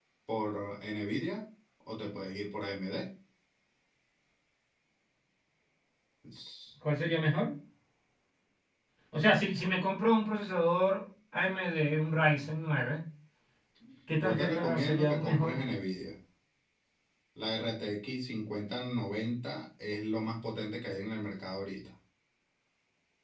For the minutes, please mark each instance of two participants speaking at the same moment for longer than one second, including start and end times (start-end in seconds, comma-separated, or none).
14.2-15.6